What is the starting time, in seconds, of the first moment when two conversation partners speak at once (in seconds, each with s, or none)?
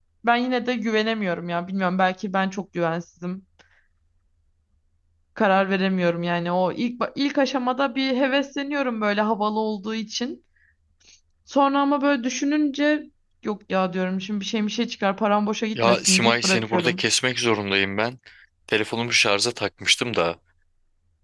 15.8 s